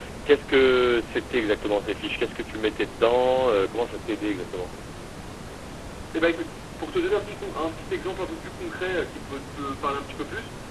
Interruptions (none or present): none